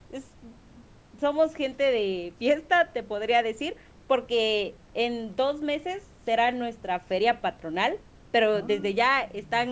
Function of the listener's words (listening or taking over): listening